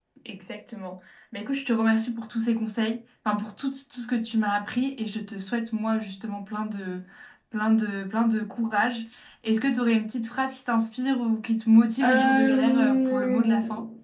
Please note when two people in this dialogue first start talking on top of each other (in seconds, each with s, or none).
12.0 s